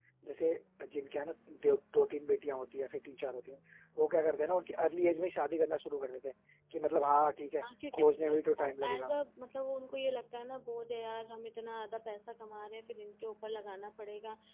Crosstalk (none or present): present